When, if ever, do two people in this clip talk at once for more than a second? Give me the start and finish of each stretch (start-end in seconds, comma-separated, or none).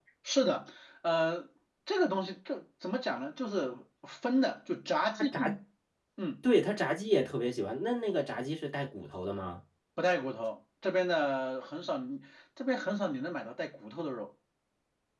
none